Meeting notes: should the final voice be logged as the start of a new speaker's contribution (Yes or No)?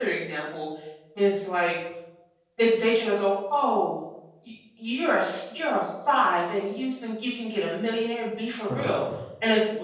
No